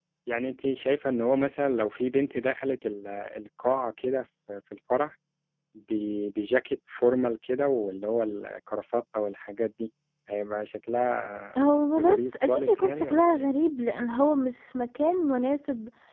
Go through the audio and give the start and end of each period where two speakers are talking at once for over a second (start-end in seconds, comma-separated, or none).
12.0-13.5